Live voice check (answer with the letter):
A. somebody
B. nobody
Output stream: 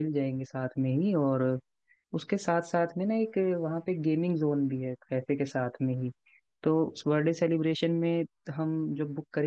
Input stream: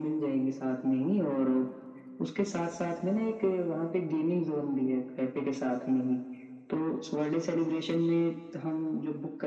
B